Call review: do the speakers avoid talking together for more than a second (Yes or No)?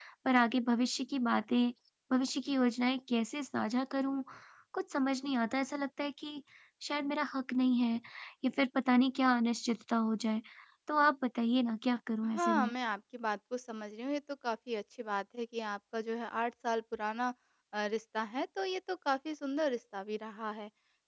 Yes